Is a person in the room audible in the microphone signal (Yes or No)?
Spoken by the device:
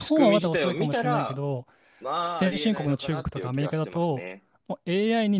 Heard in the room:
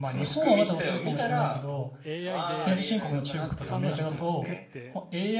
Yes